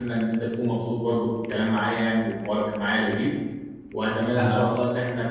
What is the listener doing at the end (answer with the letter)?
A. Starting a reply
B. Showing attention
B